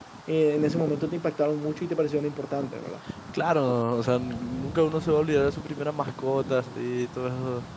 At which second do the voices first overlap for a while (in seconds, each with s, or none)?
none